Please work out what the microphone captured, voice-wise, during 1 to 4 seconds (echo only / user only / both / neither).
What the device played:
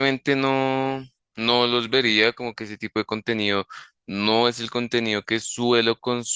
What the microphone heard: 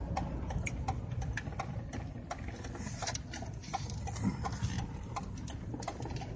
neither